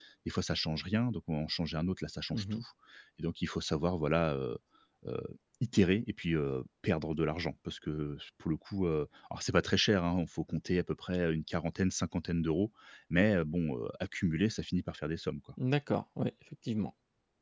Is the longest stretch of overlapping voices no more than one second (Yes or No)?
Yes